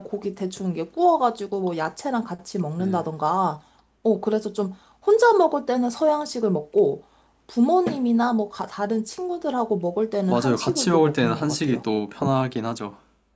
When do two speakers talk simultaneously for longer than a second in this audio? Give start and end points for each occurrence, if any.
10.3-11.8

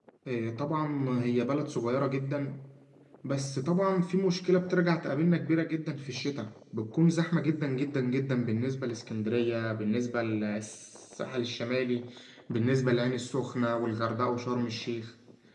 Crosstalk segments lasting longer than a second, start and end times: none

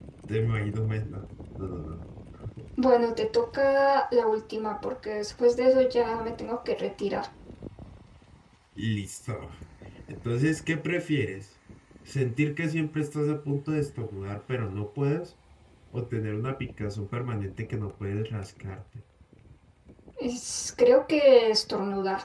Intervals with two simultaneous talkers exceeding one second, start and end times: none

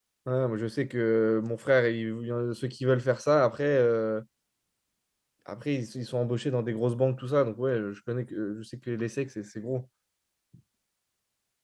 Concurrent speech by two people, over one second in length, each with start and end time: none

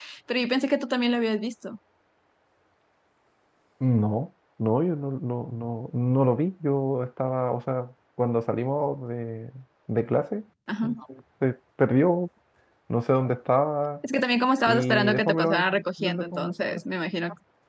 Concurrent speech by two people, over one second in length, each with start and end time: 14.6-16.8

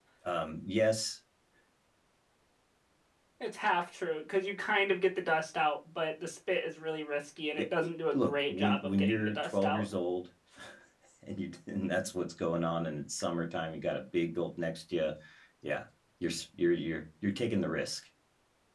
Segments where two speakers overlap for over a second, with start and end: 8.1-9.9

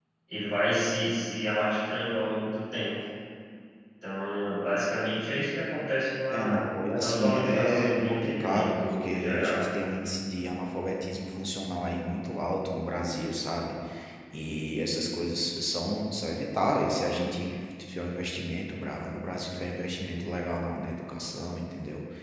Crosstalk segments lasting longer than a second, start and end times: 7.0-9.6

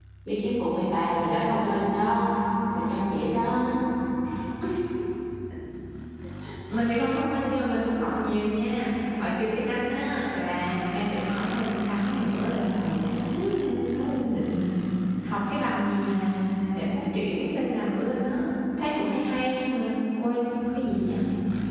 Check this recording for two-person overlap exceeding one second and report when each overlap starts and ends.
none

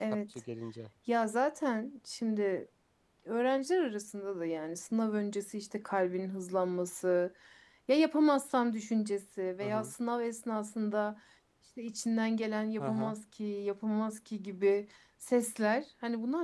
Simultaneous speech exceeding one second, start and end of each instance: none

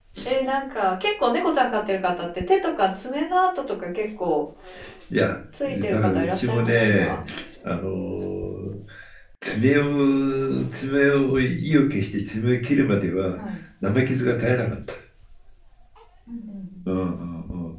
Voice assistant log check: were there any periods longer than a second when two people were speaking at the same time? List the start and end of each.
5.9-7.2

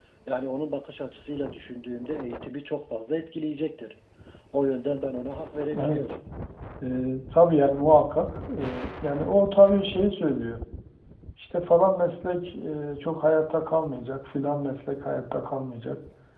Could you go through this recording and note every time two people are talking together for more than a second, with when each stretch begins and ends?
none

